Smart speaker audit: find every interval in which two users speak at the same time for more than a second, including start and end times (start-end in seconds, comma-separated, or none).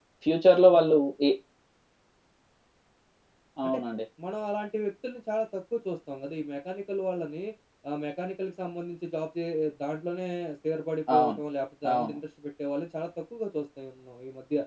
none